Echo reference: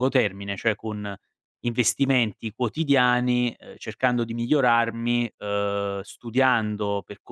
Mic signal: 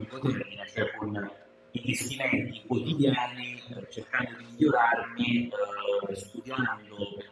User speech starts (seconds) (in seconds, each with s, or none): none